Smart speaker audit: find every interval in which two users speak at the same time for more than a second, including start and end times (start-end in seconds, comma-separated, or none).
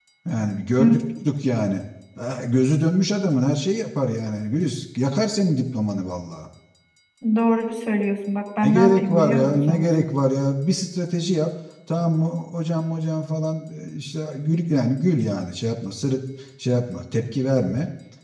8.6-9.8